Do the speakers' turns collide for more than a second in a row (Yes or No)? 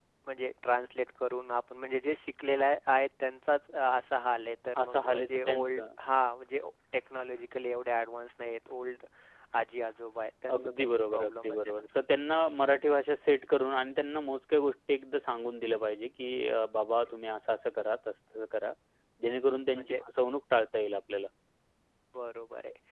Yes